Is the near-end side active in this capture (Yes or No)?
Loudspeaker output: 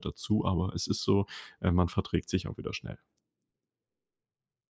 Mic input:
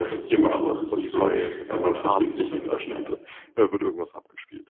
Yes